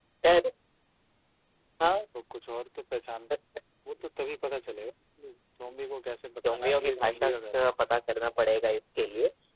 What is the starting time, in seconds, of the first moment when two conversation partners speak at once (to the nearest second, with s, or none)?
6 s